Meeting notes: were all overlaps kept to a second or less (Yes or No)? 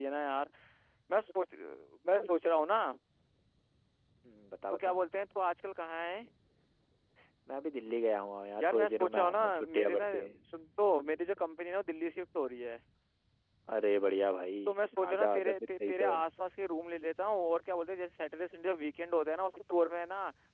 No